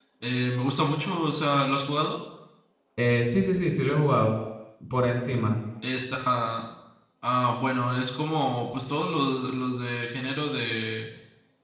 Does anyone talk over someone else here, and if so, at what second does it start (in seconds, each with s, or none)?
none